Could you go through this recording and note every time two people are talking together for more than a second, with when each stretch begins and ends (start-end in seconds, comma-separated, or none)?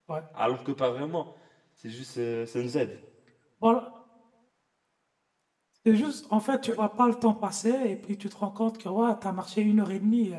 none